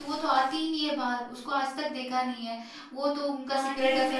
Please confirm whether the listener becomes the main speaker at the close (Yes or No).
Yes